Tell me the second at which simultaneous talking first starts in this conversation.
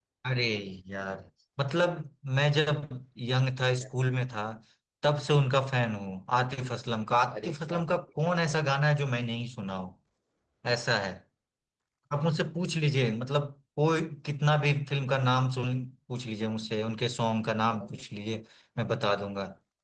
7.3 s

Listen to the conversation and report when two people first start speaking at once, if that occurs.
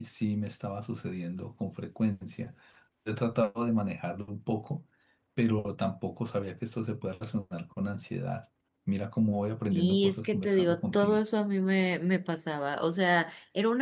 9.7 s

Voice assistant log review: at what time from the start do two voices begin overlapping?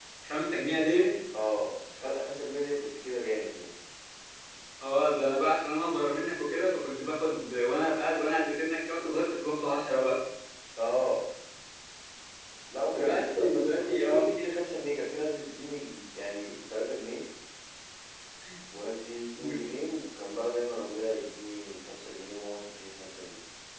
12.9 s

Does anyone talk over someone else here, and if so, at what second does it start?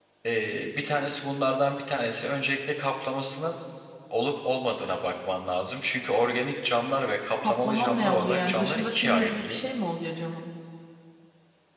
7.4 s

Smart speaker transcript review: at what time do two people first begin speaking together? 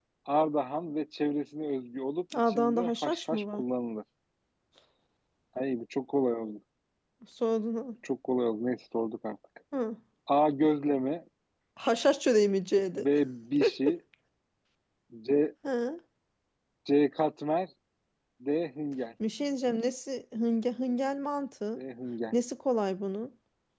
2.3 s

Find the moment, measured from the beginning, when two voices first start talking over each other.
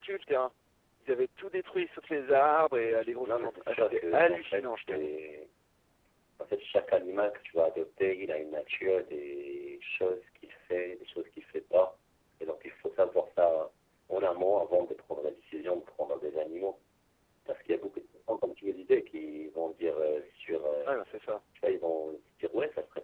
2.7 s

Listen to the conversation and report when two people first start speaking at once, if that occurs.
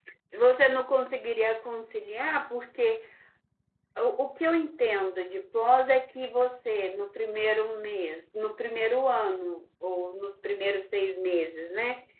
none

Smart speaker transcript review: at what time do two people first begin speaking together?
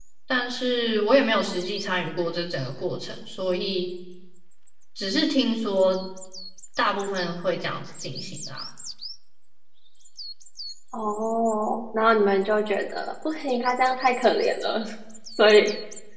none

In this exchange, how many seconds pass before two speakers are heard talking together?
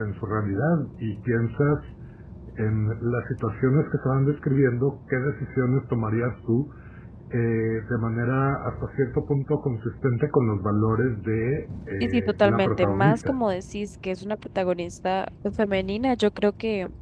12.0 s

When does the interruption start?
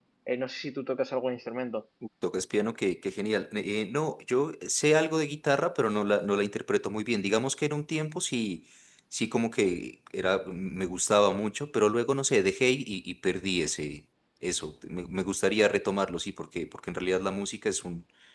none

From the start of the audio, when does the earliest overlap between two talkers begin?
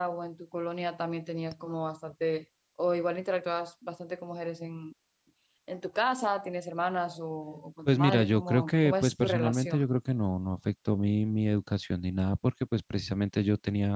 7.8 s

